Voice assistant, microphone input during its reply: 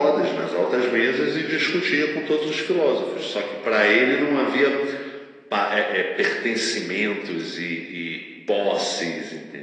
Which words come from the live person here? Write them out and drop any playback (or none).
none